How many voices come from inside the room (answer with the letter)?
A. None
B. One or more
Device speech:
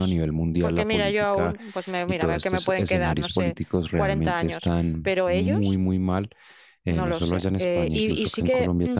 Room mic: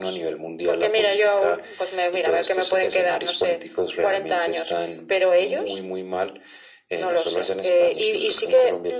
A